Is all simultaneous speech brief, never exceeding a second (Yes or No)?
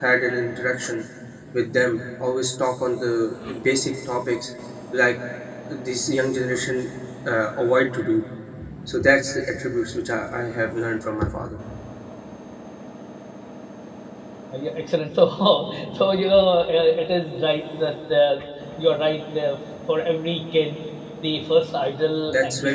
Yes